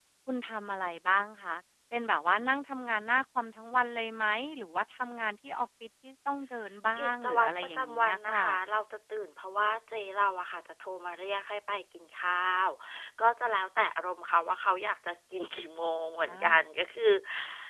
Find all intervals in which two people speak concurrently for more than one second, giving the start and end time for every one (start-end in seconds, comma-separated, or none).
7.0-8.4